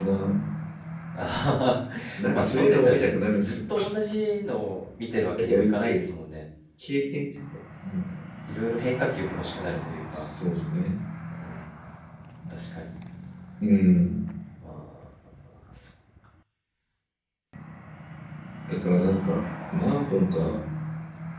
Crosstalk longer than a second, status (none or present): present